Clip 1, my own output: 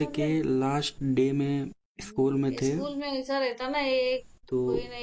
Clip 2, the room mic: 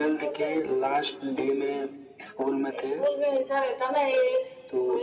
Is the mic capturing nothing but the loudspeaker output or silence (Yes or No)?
Yes